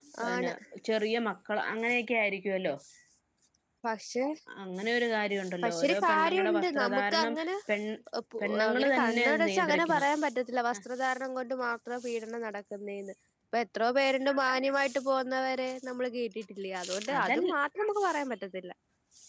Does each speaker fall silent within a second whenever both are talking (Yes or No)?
No